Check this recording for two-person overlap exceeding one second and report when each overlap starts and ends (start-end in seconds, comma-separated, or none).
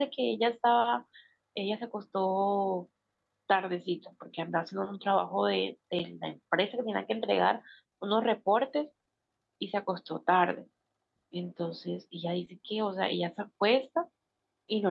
none